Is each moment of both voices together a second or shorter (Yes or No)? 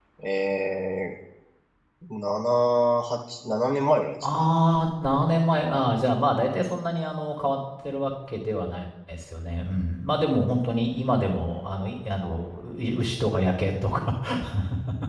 Yes